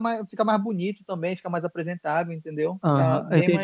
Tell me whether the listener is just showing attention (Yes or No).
No